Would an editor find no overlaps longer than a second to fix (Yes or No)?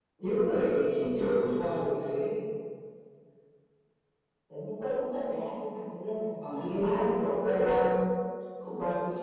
No